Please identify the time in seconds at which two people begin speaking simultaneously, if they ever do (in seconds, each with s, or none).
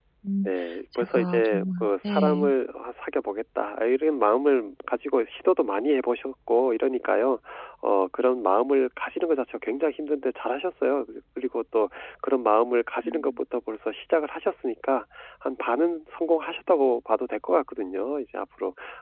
0.9 s